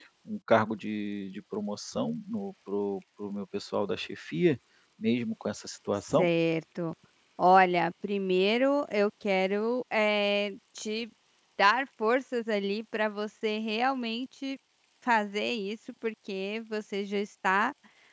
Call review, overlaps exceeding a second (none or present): none